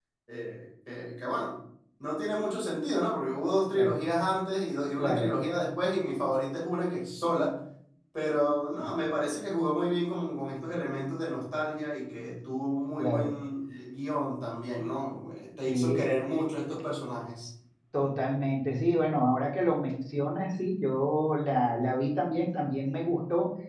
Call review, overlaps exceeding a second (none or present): none